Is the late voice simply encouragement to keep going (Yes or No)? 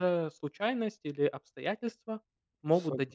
No